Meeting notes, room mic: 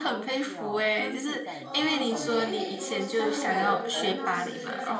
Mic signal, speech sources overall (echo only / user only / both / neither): both